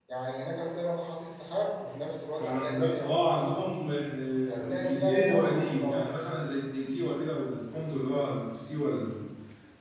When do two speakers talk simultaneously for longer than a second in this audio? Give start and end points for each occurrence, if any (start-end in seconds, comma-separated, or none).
2.4-3.6, 4.5-6.1